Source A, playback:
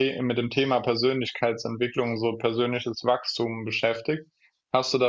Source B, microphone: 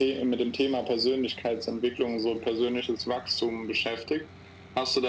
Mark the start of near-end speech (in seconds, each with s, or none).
none